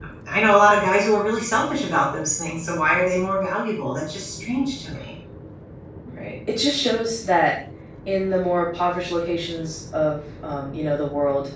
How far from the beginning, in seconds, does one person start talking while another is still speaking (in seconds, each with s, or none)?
none